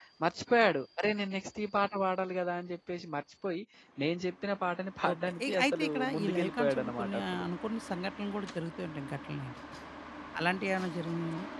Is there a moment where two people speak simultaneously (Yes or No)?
Yes